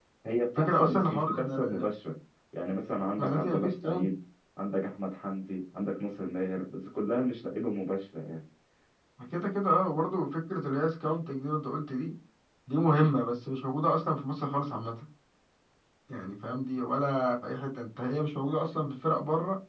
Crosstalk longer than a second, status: present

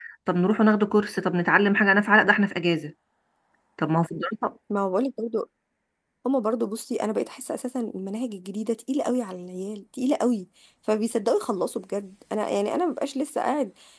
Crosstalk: none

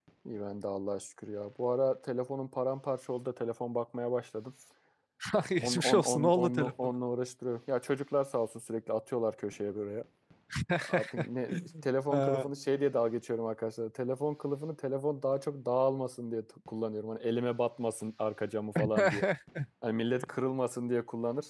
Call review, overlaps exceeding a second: present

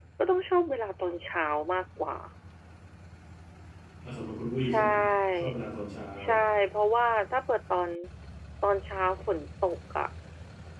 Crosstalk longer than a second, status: none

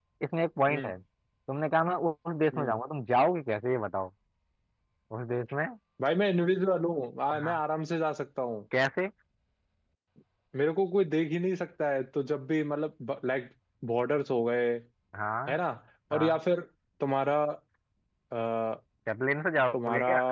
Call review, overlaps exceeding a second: none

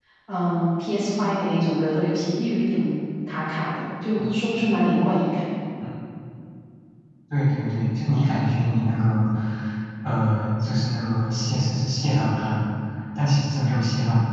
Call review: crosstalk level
none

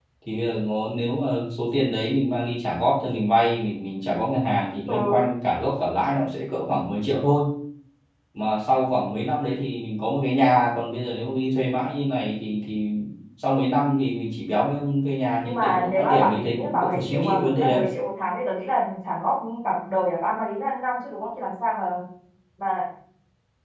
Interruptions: present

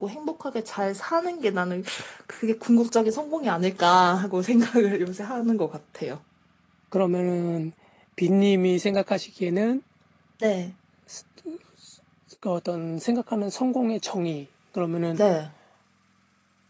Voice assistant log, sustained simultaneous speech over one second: none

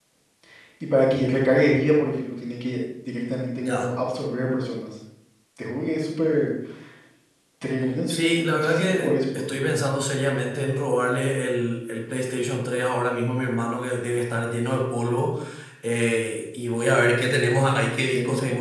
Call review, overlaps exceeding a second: present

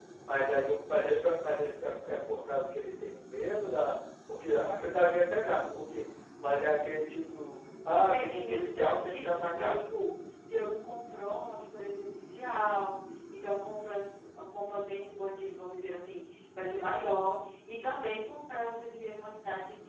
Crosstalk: present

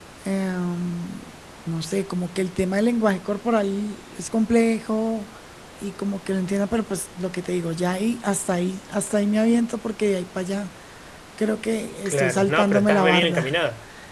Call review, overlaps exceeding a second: present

